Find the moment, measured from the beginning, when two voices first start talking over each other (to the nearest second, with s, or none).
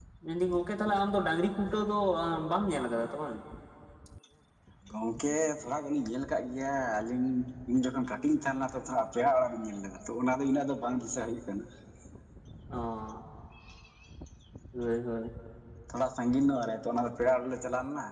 none